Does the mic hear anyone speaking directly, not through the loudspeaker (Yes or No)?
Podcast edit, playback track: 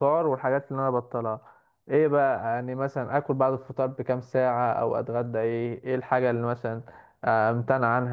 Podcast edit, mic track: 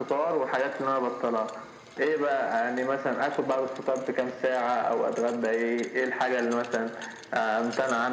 No